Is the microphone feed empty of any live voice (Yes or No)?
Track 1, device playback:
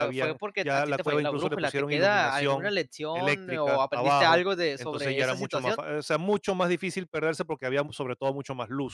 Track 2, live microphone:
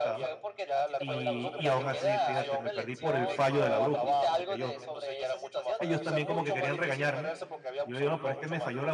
No